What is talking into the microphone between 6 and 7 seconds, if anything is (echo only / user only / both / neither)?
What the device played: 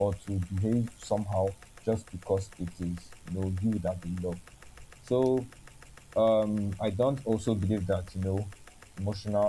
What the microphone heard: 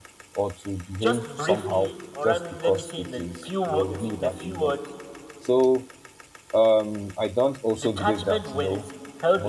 echo only